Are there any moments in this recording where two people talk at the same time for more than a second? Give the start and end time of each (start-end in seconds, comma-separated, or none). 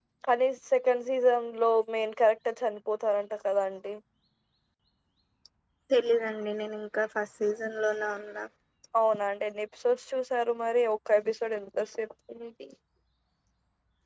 none